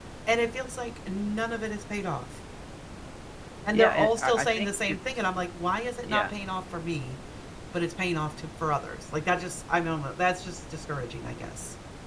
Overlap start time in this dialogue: 3.7 s

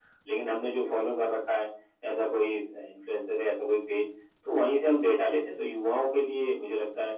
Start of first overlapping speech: none

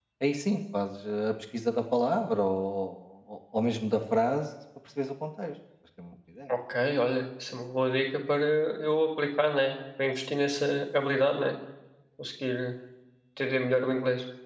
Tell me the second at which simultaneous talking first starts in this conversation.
none

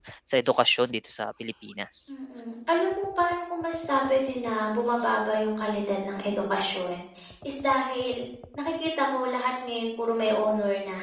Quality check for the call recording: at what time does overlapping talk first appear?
none

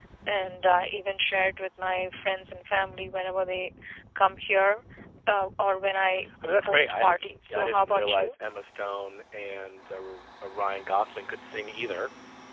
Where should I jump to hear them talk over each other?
6.5 s

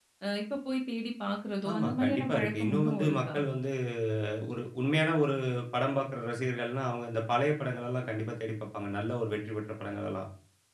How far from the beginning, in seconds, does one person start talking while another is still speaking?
1.6 s

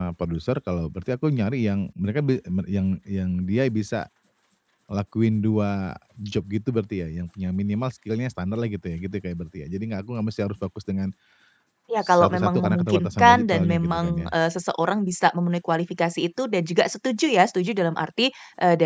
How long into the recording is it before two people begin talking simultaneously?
12.0 s

